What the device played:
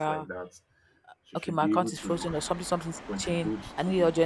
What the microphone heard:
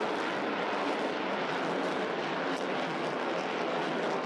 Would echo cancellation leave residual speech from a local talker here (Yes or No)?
No